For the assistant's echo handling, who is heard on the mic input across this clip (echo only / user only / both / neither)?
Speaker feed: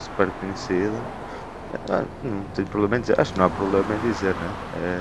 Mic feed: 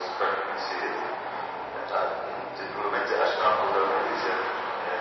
echo only